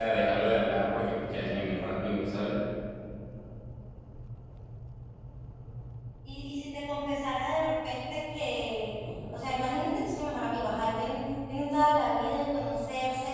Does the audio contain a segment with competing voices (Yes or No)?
No